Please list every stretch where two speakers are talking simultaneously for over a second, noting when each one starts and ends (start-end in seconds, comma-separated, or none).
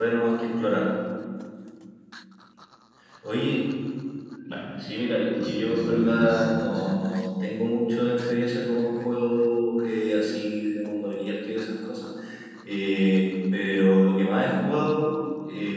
5.4-6.8